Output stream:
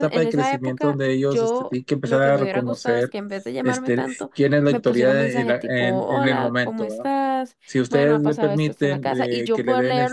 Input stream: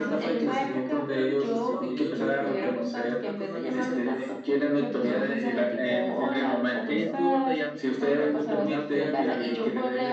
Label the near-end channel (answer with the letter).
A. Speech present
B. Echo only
A